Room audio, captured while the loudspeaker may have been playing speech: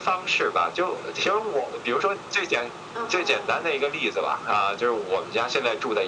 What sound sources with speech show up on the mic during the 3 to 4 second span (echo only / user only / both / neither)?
both